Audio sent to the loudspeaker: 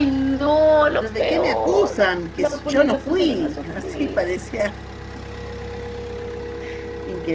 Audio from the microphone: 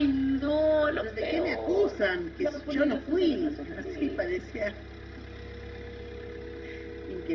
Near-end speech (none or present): none